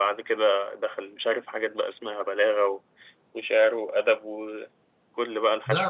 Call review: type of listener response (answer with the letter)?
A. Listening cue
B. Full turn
B